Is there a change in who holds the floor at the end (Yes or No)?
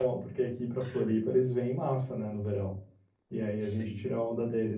No